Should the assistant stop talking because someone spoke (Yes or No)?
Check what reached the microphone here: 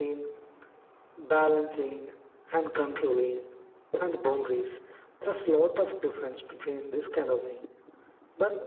No